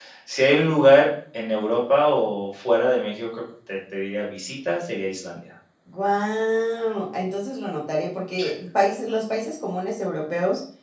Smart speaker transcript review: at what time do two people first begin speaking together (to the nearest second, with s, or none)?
none